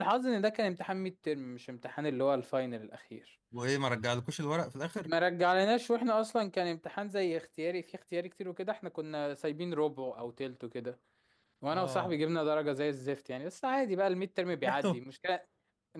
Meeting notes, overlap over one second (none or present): none